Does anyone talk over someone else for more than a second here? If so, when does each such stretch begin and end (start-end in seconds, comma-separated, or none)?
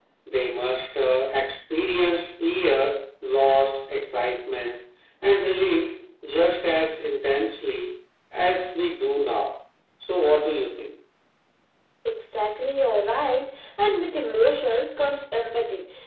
none